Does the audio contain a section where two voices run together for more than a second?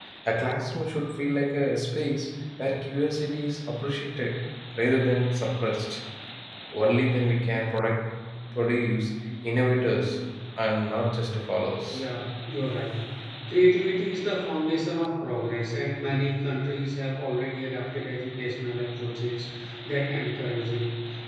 No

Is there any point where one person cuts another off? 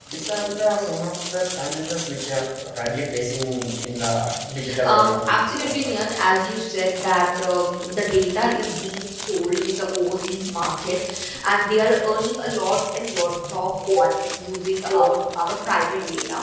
Yes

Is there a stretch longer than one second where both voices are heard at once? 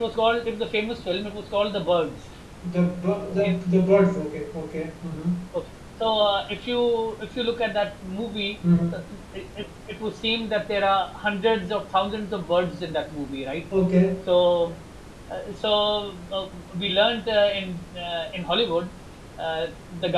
No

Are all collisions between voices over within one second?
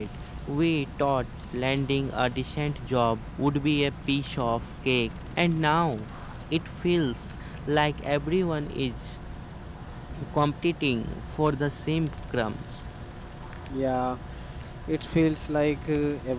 Yes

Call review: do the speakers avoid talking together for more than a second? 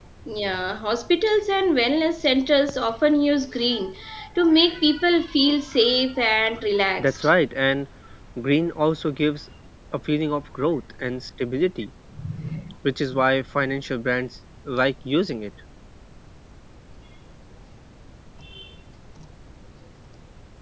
Yes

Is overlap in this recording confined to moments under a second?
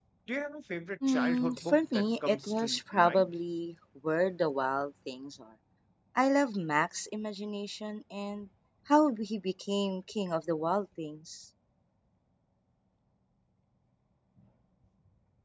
No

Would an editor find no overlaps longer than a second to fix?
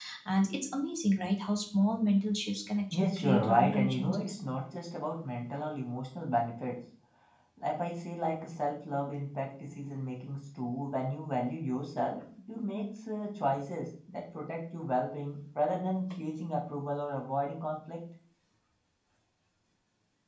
No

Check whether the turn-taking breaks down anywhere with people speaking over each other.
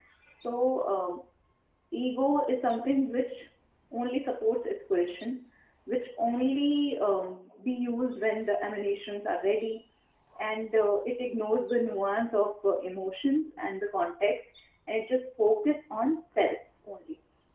No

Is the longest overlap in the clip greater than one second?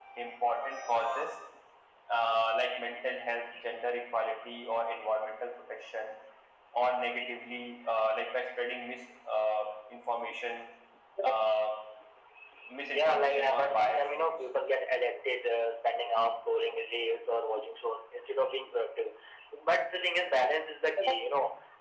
Yes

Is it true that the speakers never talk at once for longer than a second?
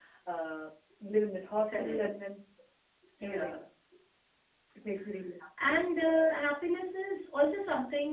Yes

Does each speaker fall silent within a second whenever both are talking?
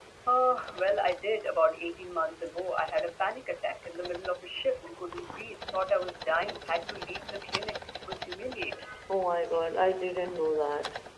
Yes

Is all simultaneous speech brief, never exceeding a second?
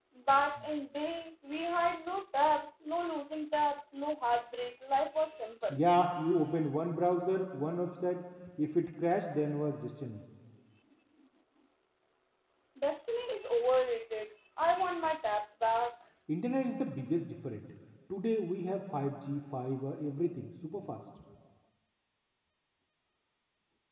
Yes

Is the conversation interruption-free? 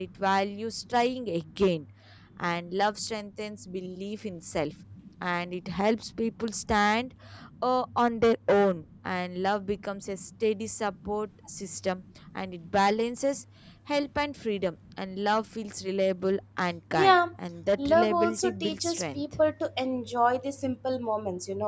No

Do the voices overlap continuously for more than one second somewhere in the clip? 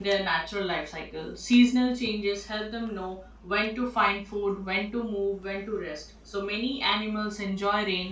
No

